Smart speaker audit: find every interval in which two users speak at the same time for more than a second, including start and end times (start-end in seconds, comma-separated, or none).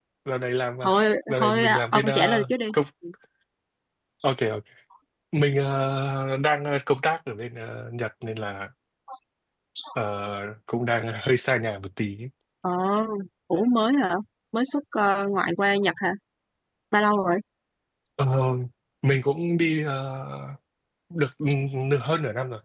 1.3-2.5